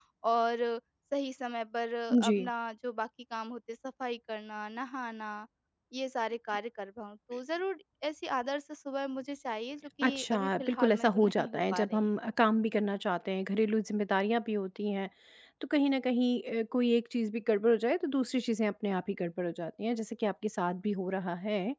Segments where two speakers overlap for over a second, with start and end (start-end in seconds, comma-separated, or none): 10.0-12.1